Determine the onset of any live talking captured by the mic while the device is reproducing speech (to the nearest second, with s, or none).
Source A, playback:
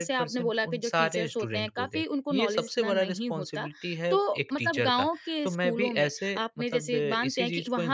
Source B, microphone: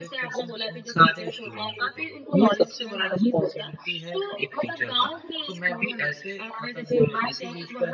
none